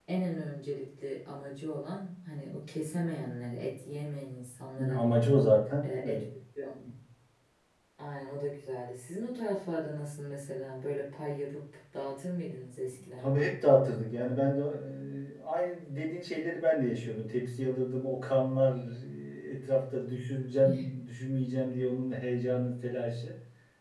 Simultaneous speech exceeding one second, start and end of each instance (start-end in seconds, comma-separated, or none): none